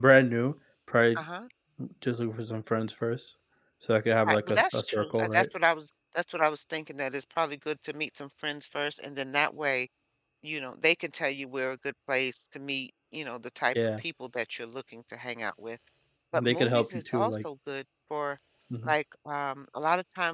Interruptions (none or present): present